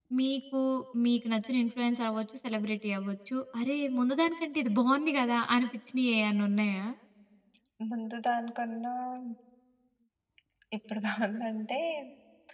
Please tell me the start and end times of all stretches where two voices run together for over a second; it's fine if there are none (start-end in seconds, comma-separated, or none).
none